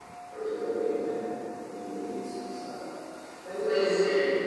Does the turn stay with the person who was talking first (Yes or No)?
Yes